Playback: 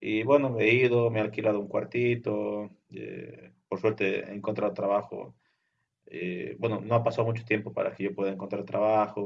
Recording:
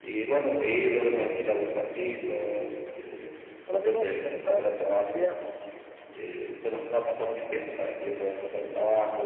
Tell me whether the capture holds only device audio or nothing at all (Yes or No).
No